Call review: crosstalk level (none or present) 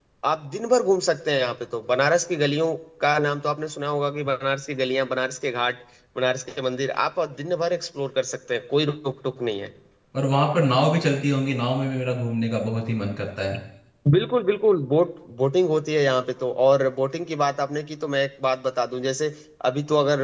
none